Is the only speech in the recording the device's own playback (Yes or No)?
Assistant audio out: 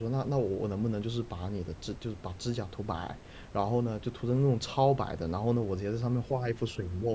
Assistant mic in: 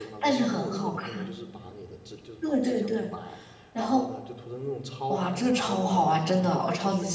No